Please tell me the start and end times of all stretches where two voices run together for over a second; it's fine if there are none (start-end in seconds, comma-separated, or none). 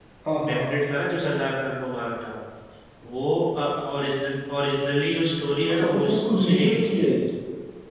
5.7-7.1